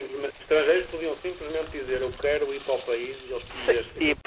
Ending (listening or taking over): taking over